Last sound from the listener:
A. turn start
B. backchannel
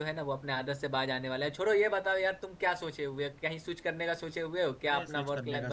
A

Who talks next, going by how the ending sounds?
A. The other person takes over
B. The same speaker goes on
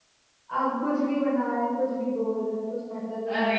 A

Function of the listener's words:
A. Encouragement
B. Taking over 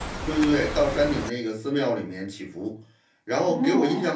A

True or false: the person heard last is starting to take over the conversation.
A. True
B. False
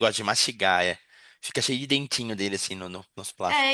A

